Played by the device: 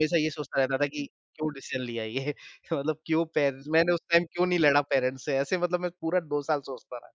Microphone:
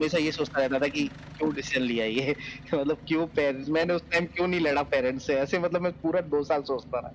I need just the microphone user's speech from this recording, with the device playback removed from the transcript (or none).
none